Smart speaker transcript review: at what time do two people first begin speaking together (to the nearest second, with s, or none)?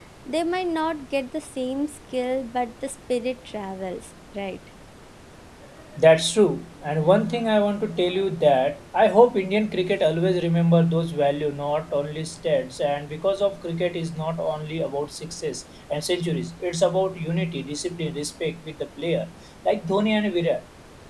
none